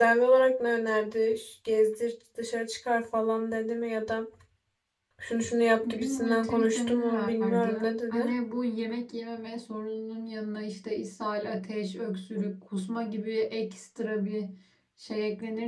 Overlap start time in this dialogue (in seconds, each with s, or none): 5.9 s